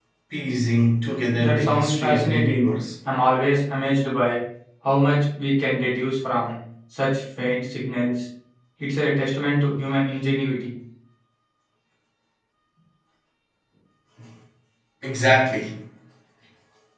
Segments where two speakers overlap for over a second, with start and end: 1.4-2.7

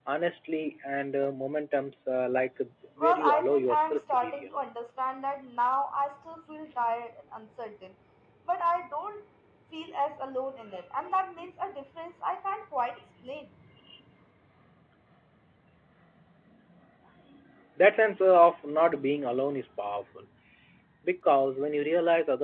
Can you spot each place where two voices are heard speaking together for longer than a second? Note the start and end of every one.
3.0-4.5

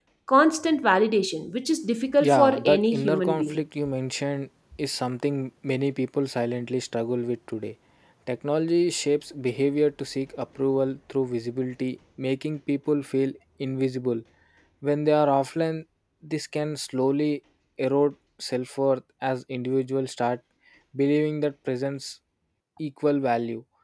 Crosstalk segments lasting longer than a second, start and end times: 2.2-3.6

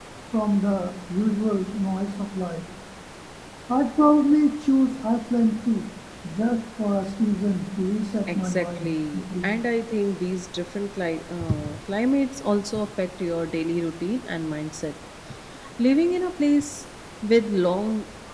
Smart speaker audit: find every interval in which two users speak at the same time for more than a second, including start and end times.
8.4-9.7

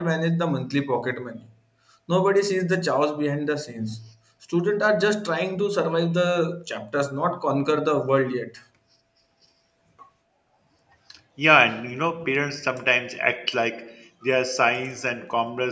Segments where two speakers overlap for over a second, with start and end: none

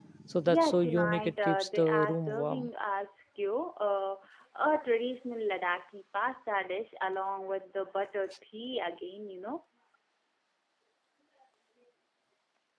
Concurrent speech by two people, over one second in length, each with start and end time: 0.5-2.7

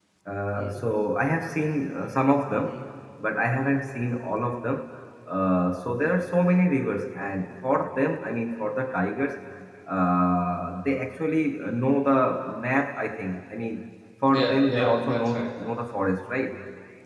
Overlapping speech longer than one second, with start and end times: 14.3-15.5

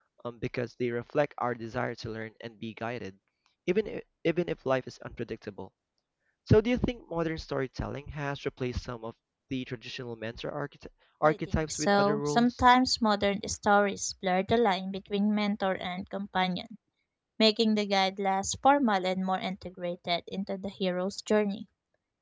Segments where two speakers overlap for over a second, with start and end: 11.2-12.5

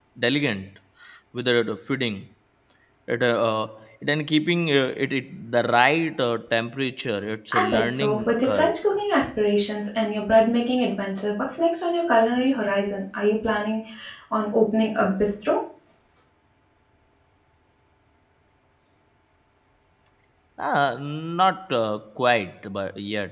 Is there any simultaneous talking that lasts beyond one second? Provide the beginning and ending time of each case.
7.5-8.7

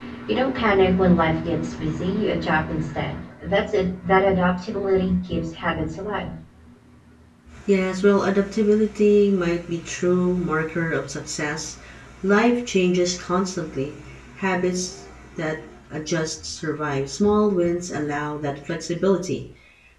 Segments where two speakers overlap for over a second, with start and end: none

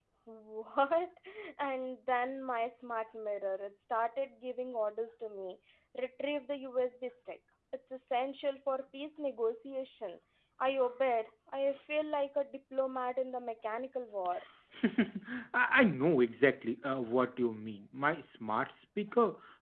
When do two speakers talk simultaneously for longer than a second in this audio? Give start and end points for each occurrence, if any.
none

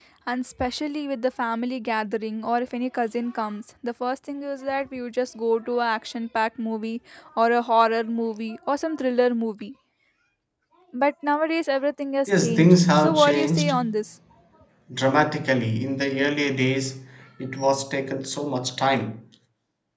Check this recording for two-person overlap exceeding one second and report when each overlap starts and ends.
12.3-13.8

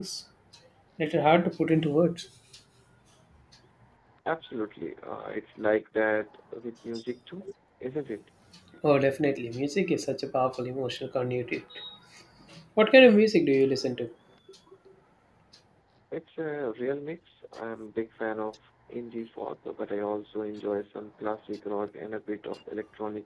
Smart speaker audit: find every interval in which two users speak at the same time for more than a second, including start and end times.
none

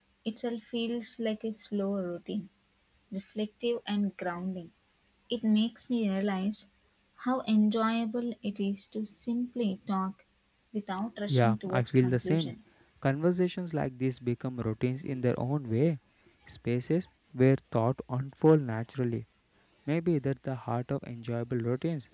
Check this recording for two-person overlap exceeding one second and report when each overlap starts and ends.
11.3-12.5

